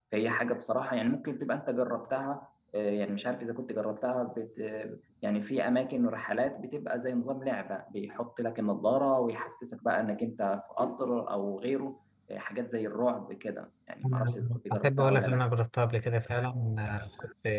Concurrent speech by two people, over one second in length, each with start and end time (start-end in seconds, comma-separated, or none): 14.0-15.4